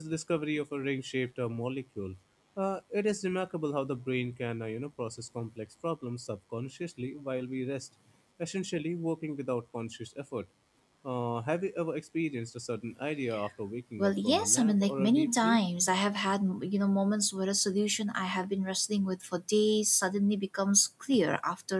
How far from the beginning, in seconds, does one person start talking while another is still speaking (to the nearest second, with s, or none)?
14 s